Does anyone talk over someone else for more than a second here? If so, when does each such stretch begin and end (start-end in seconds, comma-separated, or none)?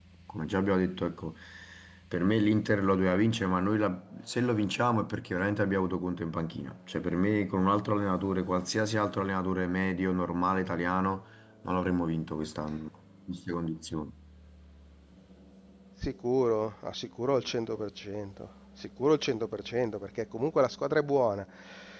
none